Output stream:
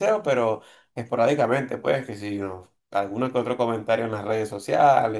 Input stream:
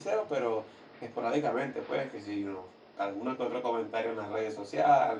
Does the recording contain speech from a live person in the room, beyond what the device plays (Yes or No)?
No